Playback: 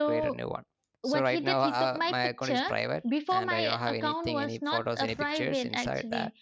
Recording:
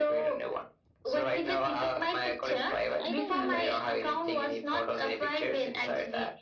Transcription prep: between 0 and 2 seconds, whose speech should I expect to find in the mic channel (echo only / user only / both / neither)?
echo only